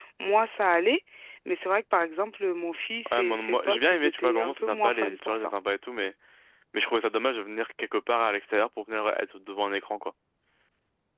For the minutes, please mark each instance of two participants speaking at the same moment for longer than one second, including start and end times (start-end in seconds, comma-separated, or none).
3.1-5.5